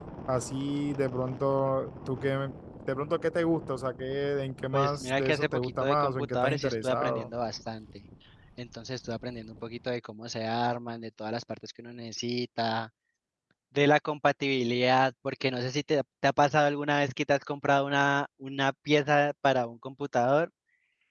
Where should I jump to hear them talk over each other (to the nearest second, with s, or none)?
5 s